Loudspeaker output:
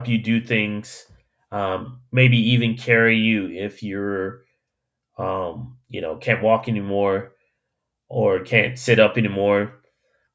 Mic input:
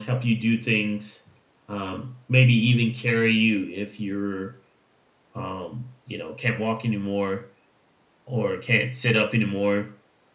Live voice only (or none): none